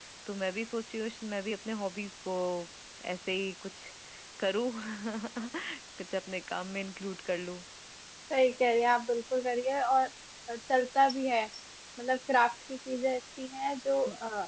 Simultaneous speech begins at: none

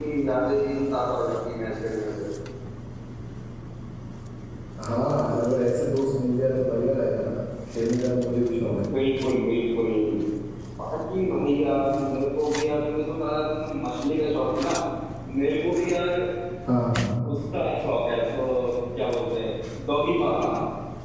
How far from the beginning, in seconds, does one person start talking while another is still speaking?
none

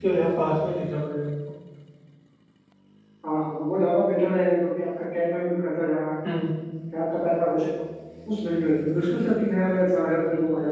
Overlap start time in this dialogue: none

